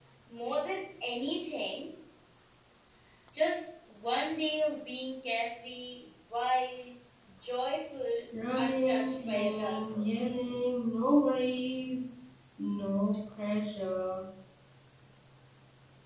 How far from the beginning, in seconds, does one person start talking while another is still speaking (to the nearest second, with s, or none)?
8 s